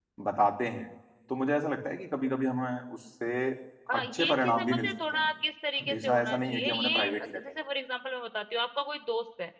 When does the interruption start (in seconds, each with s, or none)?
3.9 s